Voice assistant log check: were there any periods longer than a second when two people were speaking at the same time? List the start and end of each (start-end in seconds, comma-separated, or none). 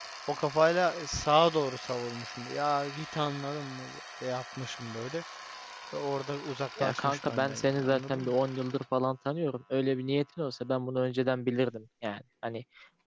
6.8-8.3